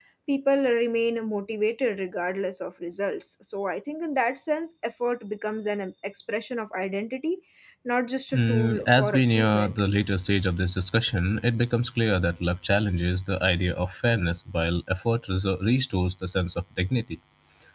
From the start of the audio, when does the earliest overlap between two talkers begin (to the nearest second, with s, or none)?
8 s